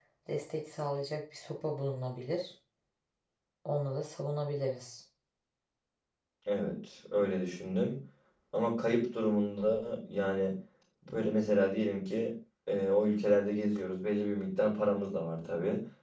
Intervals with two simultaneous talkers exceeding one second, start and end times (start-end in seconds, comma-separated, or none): none